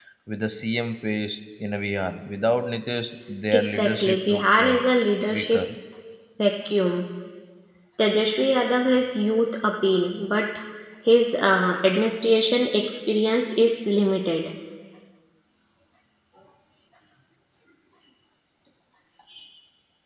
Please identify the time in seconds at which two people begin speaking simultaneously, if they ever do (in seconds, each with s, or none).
3.5 s